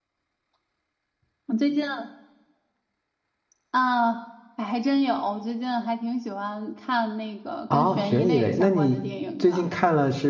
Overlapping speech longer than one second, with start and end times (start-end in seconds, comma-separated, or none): 7.7-9.0